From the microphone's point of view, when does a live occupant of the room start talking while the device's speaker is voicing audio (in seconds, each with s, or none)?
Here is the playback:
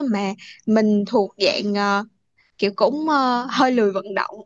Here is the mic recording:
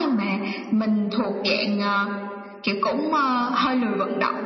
none